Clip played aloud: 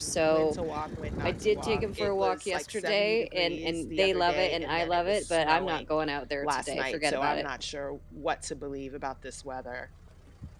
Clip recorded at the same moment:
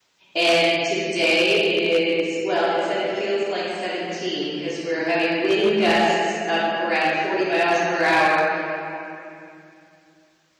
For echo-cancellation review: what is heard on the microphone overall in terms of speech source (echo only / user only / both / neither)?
user only